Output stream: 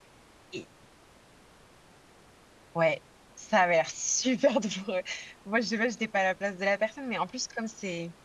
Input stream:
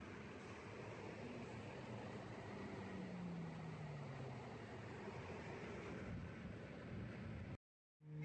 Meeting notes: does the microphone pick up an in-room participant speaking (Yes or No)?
No